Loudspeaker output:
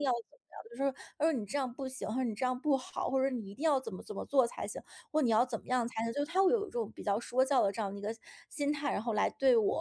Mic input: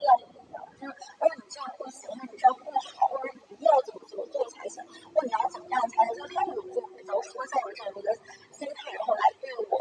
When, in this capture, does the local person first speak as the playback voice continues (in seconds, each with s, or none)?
none